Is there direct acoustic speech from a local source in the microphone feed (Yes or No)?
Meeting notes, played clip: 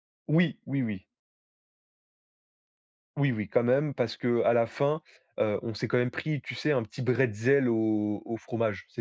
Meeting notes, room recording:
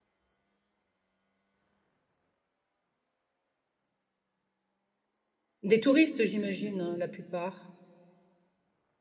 Yes